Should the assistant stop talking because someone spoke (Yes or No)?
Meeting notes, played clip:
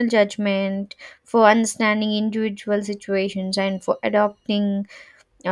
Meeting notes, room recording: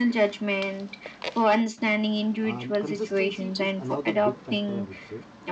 Yes